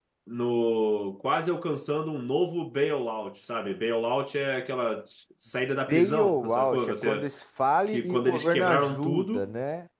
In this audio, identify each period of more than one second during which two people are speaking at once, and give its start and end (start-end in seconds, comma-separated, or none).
5.9-7.3, 7.9-9.5